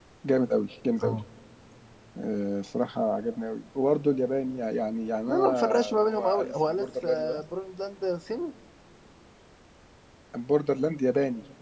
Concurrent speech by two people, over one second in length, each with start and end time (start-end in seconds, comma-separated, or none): 5.3-7.4